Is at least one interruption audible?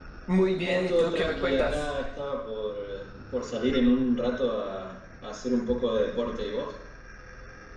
Yes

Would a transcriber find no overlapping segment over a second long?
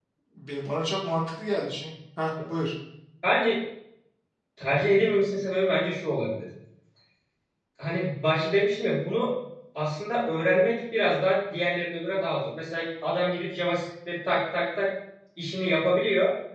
Yes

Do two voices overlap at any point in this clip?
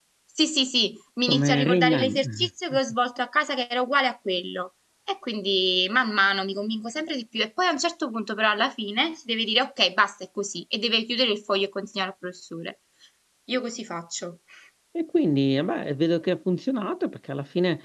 Yes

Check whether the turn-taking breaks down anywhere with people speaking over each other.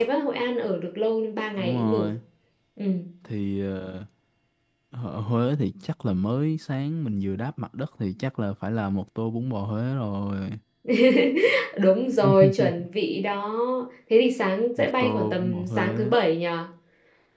Yes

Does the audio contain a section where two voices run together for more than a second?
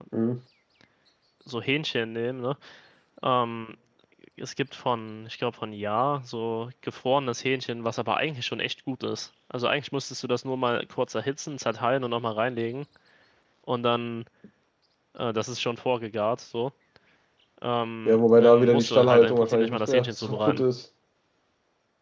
Yes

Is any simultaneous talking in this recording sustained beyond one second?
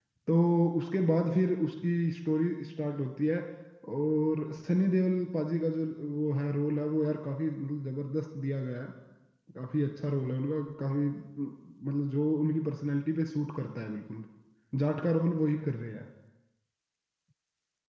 No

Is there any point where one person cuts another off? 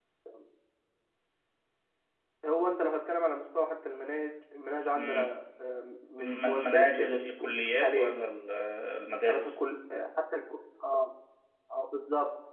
Yes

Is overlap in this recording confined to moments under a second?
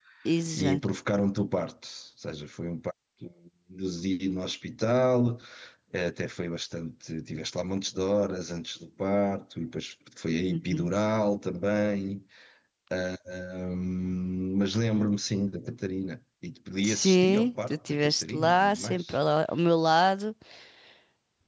No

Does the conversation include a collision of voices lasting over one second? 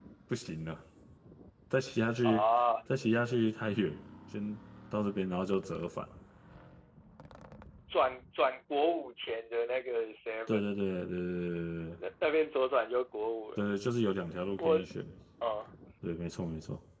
No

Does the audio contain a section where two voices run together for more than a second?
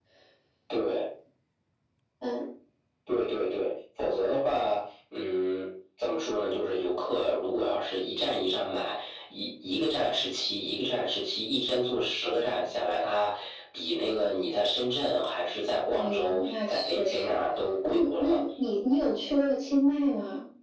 Yes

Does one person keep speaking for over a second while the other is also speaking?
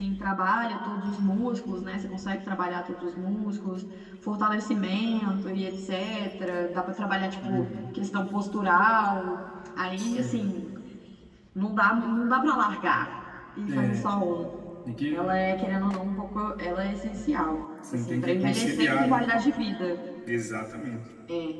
Yes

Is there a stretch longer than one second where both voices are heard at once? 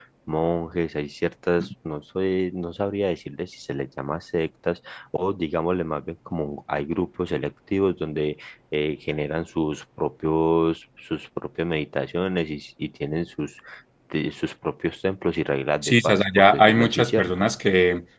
Yes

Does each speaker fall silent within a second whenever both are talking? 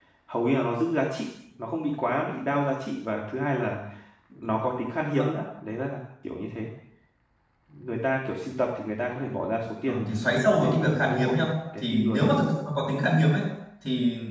No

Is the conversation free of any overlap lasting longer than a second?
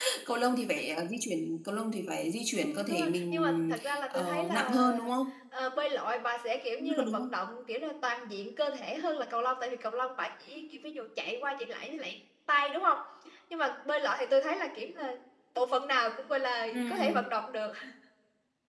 No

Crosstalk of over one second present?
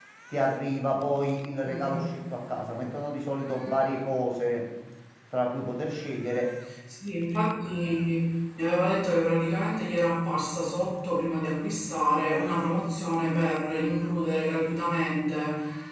No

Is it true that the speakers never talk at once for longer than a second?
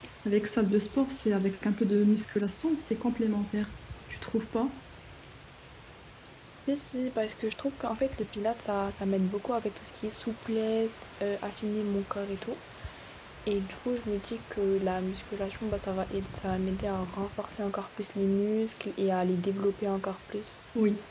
Yes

